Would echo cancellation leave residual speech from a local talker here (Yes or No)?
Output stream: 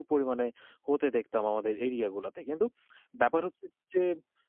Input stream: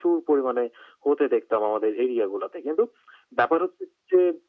No